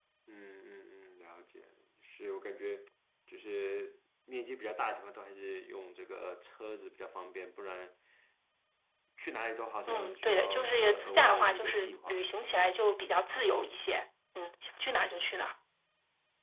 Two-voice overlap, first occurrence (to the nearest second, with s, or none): 10 s